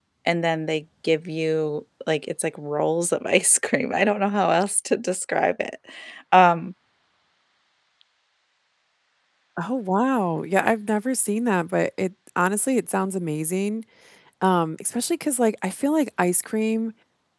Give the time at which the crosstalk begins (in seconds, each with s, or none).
none